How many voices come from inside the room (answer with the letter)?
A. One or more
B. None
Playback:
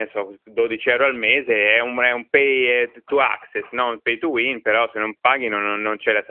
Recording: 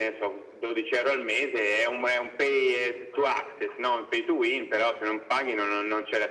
B